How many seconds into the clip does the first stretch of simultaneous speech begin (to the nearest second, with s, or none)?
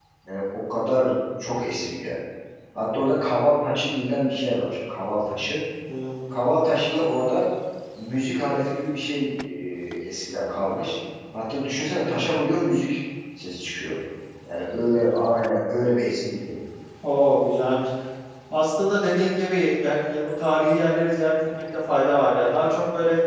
none